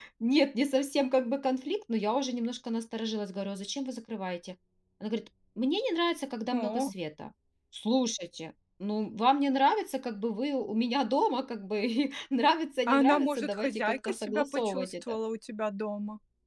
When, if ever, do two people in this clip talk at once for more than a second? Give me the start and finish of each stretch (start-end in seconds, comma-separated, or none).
12.9-15.2